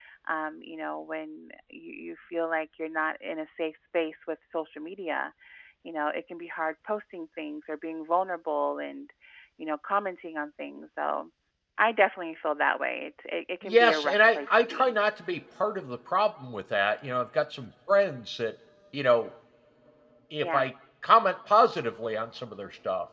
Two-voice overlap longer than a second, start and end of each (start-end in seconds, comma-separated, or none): 13.6-14.9